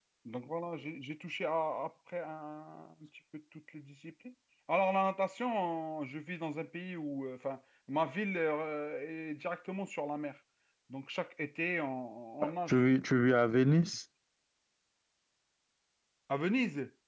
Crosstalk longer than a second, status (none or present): none